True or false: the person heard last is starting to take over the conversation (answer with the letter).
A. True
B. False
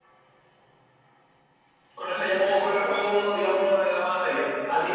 A